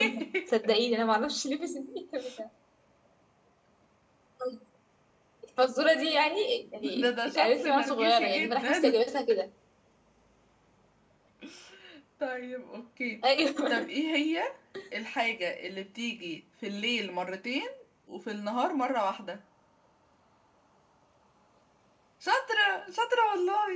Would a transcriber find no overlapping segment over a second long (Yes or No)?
No